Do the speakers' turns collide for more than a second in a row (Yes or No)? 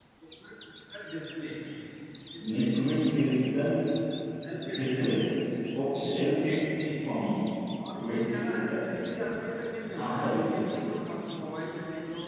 Yes